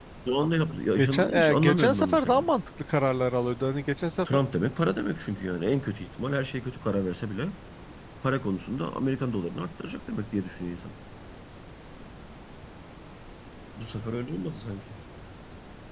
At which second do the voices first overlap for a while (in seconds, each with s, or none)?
1.0 s